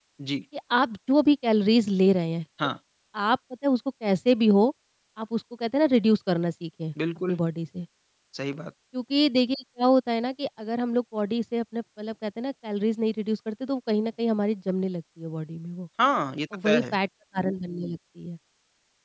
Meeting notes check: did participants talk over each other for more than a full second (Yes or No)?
No